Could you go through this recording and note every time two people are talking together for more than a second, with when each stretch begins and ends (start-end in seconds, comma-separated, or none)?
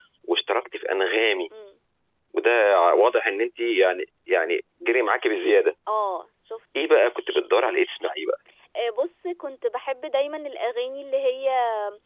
none